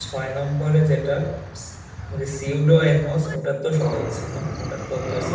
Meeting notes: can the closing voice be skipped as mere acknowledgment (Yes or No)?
No